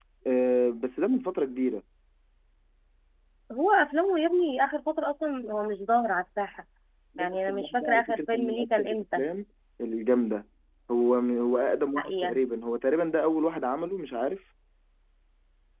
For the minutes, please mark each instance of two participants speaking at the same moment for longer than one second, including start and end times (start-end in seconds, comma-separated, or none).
7.2-9.2